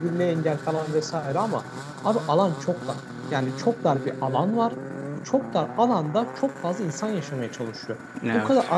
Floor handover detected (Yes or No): No